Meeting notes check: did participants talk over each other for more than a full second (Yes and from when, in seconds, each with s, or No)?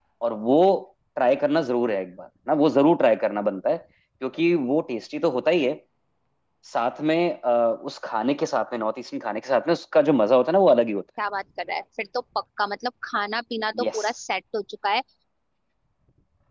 No